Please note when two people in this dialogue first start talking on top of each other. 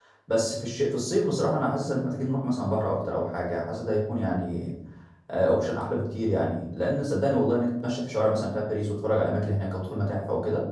none

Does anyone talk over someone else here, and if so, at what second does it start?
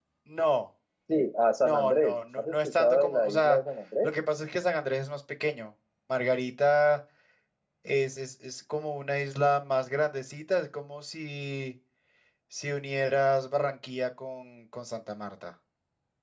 1.6 s

